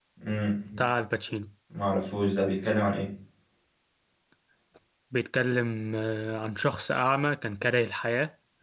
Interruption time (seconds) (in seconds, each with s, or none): none